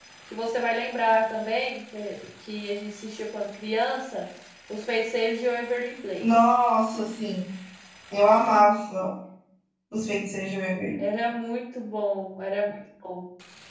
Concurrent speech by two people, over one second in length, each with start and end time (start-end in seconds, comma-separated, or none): none